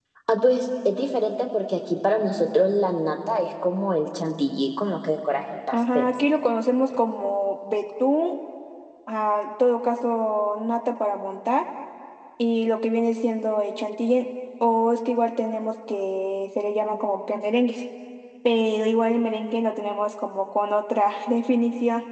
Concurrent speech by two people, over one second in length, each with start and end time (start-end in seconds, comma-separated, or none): none